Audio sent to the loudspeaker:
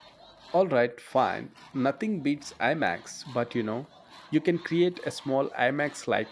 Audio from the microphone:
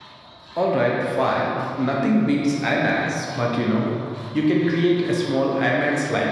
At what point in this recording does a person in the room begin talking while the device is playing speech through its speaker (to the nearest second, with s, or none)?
none